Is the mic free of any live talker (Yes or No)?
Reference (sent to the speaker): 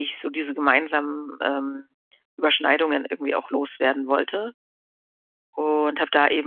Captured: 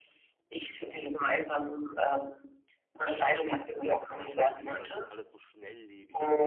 No